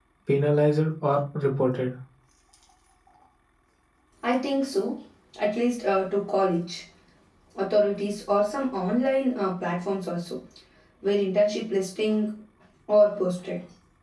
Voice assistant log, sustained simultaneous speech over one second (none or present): none